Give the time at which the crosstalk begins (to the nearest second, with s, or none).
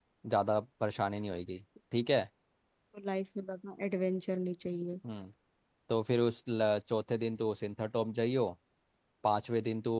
none